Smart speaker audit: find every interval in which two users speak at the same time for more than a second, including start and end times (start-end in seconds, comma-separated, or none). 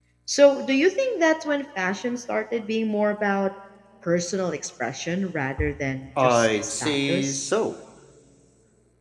6.2-7.5